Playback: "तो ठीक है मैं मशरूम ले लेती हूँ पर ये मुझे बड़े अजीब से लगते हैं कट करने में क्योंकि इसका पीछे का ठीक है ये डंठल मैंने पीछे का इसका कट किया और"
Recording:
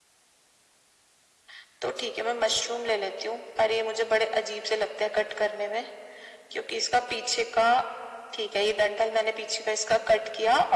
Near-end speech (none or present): none